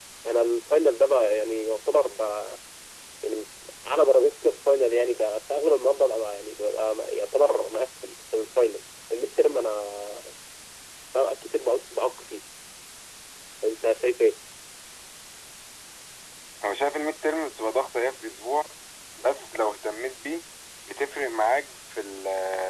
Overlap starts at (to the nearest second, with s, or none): none